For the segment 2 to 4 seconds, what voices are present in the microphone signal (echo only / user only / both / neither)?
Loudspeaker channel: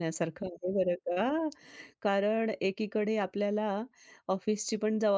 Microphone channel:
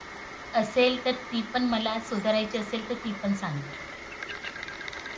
user only